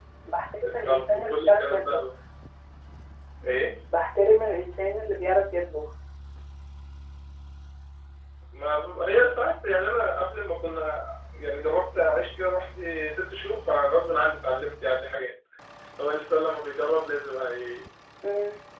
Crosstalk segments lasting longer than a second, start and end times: 0.6-2.0

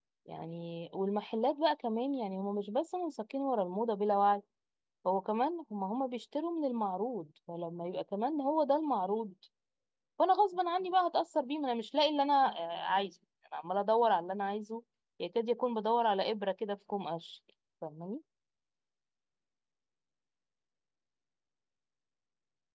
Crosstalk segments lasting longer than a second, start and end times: none

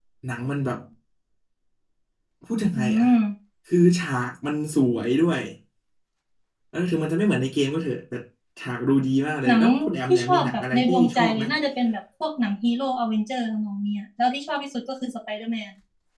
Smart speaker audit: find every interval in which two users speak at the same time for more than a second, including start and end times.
10.1-11.4

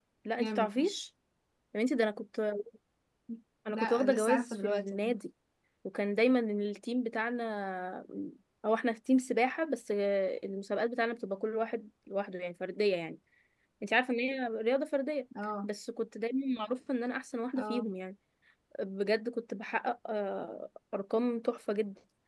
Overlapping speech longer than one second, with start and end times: 3.7-5.0

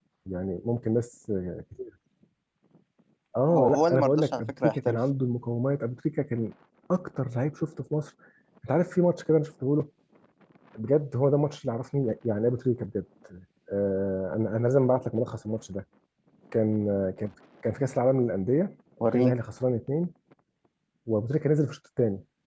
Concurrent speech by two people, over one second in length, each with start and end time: 3.5-5.0

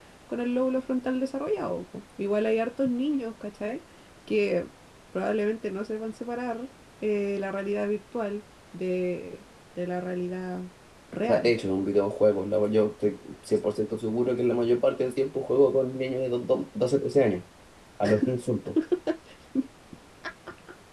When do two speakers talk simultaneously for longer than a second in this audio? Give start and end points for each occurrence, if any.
none

